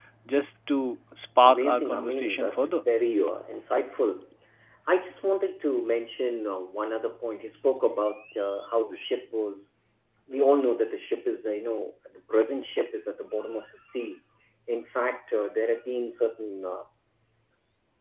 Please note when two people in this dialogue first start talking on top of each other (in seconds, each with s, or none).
1.4 s